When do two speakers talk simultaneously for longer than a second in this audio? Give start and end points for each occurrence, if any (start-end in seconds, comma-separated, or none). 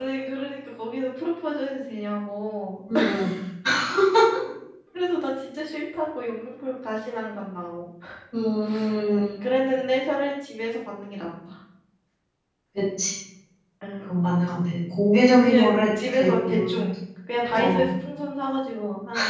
15.4-16.8